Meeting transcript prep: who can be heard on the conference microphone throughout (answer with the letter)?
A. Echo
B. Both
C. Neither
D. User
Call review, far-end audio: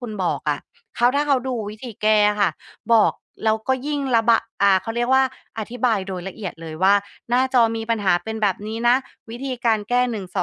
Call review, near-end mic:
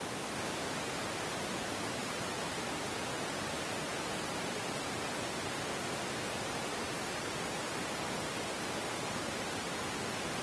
C